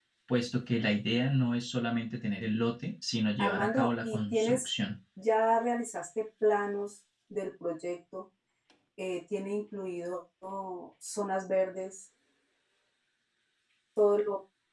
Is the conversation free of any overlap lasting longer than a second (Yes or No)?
No